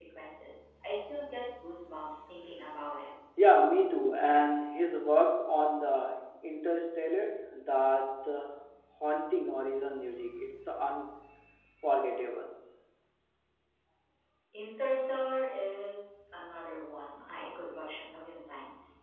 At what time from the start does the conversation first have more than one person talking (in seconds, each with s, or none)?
none